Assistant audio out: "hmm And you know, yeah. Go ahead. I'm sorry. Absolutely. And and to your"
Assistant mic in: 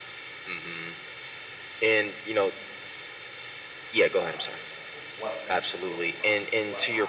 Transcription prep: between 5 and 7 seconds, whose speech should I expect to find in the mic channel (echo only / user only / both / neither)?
both